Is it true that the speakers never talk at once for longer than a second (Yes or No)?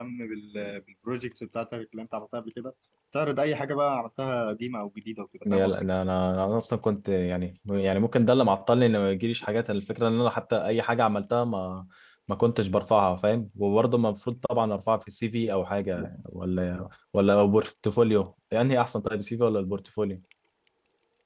Yes